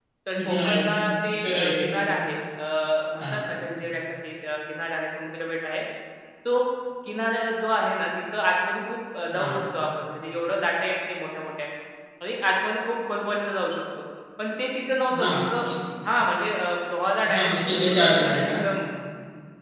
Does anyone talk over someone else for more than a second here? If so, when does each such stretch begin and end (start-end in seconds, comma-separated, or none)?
17.3-18.6